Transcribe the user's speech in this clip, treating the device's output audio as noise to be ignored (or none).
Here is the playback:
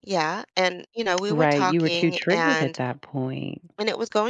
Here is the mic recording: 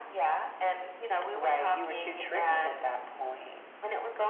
none